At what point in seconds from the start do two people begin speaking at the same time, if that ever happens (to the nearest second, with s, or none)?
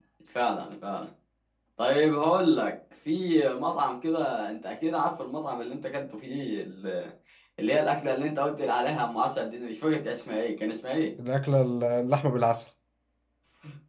none